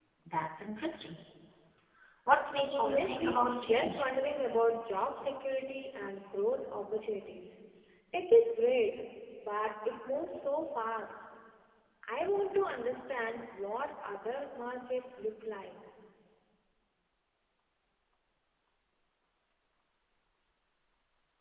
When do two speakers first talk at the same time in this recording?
2.8 s

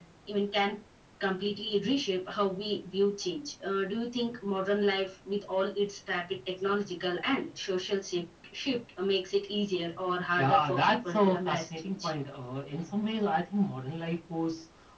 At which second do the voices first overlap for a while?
10.4 s

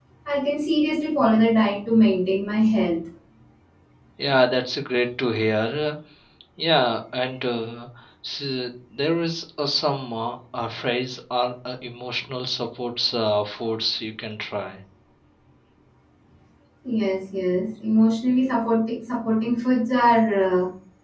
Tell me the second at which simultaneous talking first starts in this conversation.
none

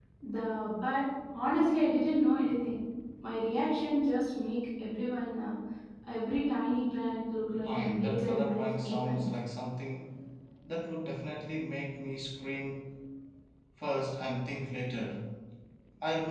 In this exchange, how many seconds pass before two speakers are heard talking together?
7.7 s

